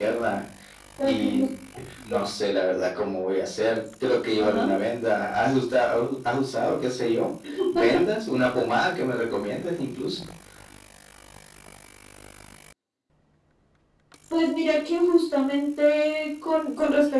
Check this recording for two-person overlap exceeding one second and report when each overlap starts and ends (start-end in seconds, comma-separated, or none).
none